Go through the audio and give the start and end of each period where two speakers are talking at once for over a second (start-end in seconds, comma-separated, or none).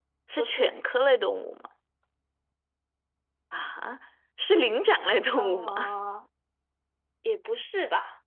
none